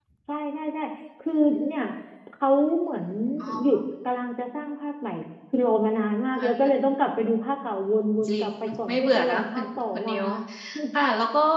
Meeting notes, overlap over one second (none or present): present